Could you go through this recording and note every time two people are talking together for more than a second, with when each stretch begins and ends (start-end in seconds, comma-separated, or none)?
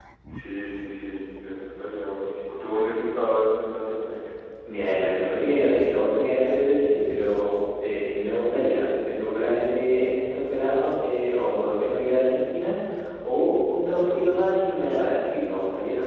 none